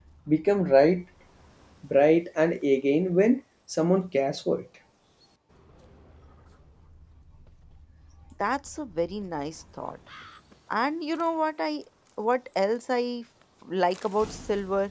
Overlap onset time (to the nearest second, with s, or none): none